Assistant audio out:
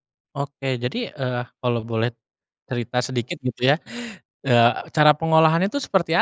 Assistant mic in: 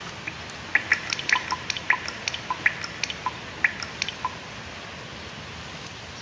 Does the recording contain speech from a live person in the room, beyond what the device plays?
No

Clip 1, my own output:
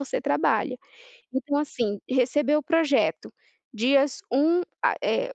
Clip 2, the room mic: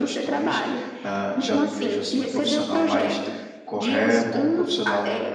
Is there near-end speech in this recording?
Yes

